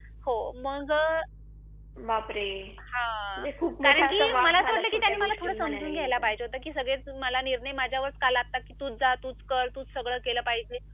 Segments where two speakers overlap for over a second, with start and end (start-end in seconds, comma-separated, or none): 3.8-6.3